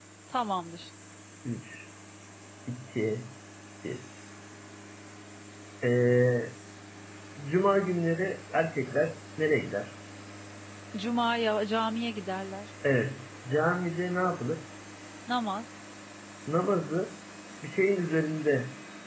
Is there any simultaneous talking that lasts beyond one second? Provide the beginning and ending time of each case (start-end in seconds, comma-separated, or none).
none